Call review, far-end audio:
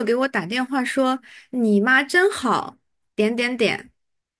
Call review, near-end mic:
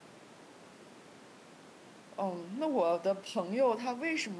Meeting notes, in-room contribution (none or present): present